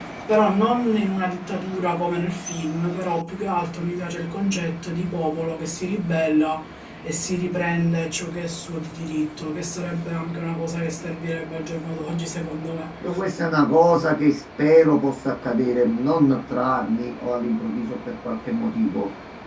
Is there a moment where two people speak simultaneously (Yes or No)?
No